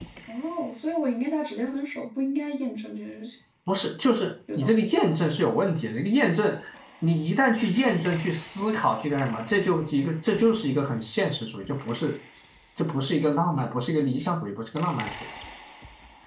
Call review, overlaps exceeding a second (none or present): none